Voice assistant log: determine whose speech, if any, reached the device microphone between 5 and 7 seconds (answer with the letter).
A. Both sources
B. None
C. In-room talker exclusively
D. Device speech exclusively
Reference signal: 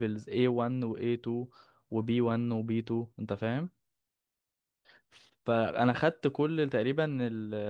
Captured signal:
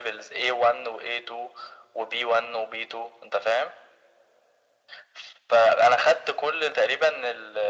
D